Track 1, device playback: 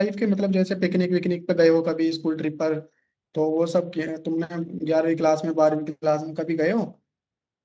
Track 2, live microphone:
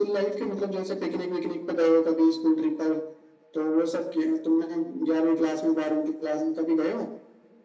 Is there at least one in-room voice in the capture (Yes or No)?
No